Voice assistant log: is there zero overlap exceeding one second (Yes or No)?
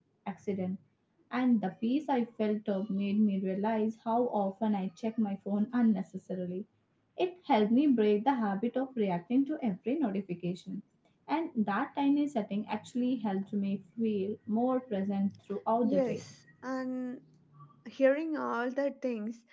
Yes